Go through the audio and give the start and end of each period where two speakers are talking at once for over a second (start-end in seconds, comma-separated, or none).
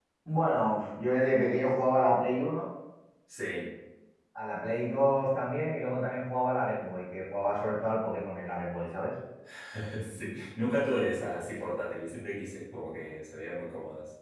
none